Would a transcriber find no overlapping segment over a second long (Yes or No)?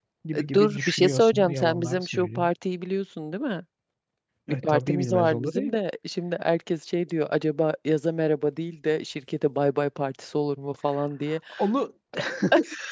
No